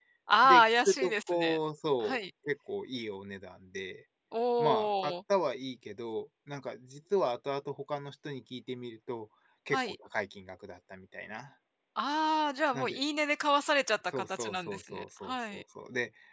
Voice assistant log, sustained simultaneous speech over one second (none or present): present